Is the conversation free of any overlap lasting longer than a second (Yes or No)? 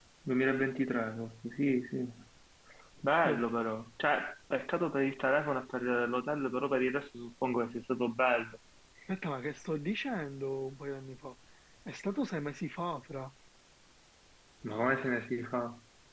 Yes